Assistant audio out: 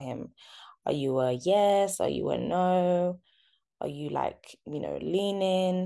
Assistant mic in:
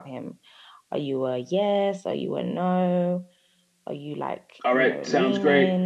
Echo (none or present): present